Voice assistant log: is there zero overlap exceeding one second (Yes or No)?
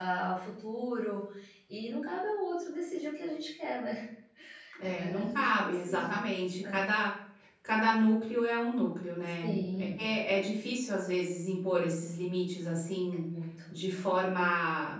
No